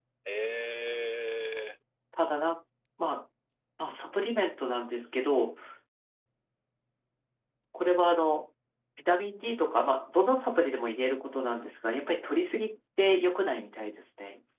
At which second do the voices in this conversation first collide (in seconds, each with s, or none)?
none